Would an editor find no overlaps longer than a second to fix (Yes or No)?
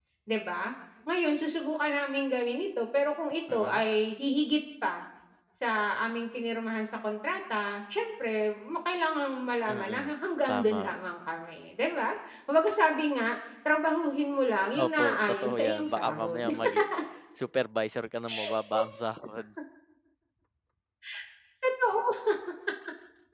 No